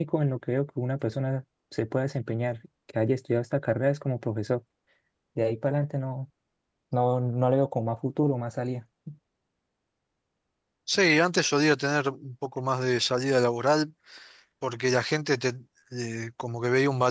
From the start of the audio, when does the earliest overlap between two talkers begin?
none

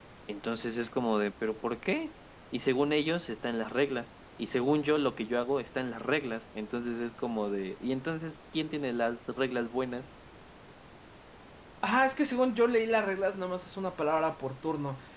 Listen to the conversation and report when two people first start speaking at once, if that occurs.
none

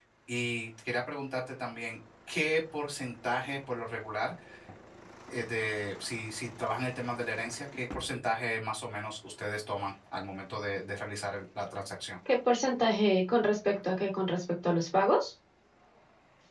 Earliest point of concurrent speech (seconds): none

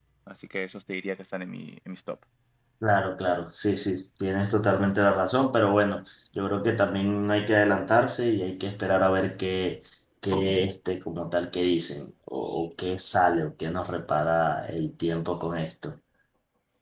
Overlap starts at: none

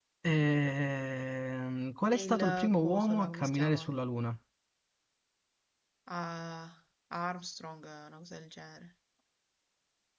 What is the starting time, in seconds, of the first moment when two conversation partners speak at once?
2.1 s

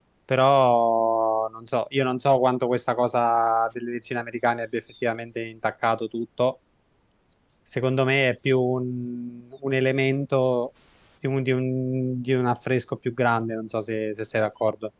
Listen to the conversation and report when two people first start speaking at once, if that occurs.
none

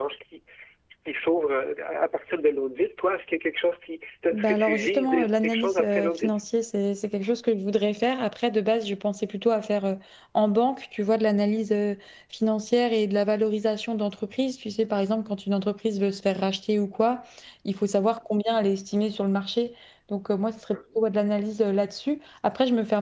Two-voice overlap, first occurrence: 4.3 s

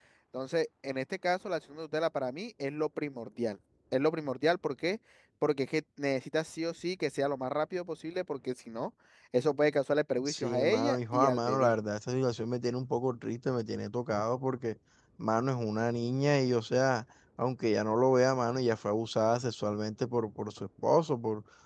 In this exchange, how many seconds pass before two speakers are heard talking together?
10.3 s

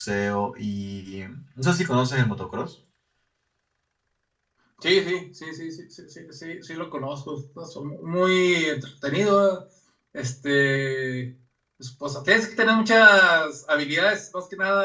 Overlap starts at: none

